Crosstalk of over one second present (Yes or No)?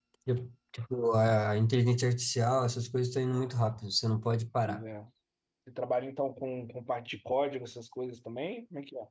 No